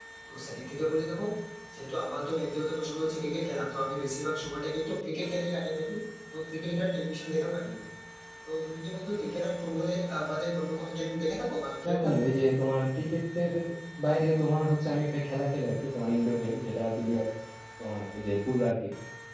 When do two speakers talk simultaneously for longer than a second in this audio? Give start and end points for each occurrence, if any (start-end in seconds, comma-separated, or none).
none